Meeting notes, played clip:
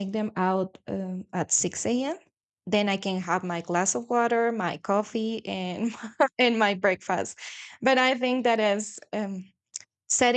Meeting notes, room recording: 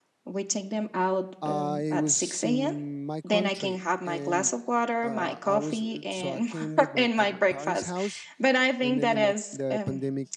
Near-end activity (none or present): present